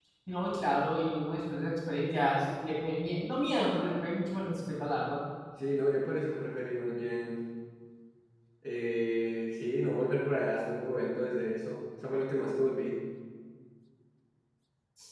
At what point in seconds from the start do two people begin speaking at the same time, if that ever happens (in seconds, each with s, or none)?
none